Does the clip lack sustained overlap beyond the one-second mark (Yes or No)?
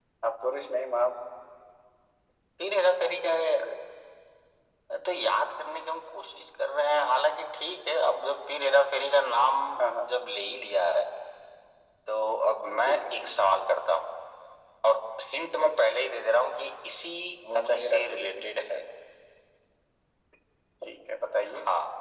No